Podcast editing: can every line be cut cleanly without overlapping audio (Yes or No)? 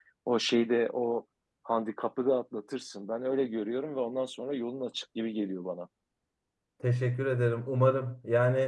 Yes